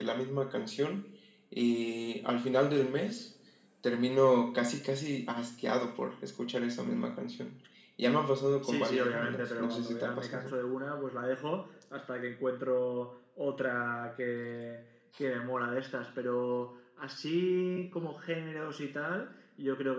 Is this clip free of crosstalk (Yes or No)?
No